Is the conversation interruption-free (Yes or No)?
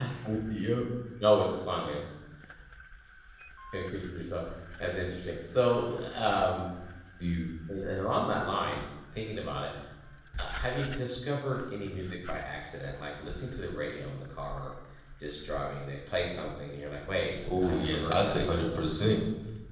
No